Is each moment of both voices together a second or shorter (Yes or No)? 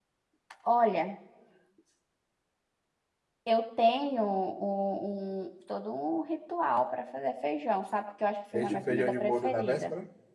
No